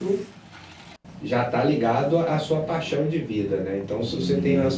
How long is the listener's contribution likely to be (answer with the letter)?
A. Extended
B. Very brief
B